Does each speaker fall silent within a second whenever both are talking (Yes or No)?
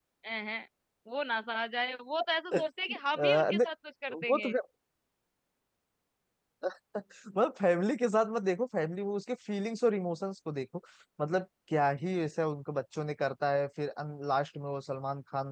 Yes